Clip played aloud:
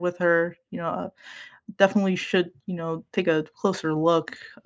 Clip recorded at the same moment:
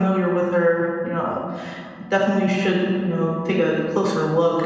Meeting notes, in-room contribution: none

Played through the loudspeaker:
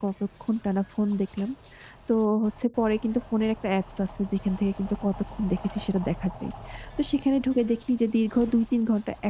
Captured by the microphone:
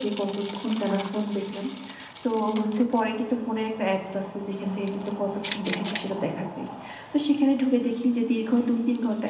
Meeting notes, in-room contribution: none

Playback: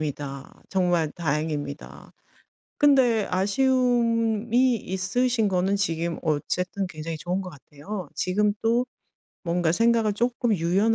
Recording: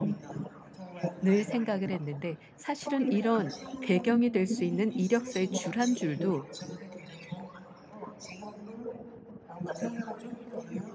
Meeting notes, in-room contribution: present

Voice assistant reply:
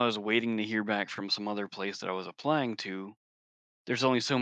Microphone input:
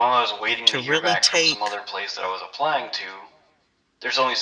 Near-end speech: present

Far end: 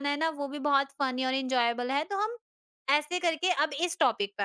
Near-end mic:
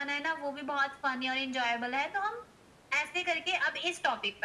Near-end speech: none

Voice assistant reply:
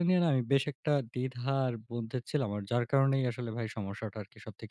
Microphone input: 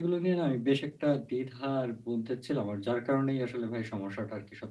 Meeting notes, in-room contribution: none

